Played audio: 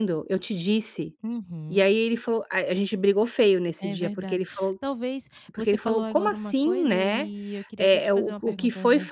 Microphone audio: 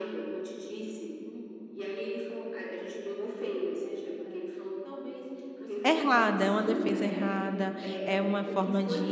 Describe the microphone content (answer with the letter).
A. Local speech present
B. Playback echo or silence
A